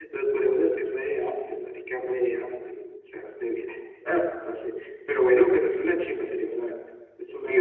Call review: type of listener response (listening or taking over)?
taking over